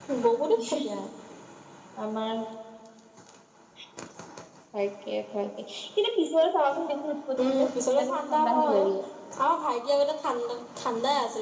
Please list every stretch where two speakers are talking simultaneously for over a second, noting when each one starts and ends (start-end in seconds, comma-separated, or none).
7.4-8.8